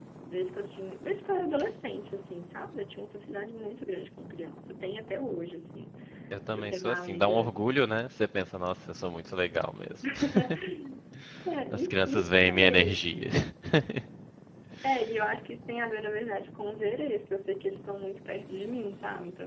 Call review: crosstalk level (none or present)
present